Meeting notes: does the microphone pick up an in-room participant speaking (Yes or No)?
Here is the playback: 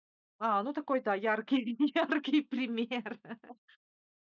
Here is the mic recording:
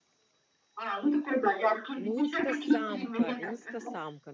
Yes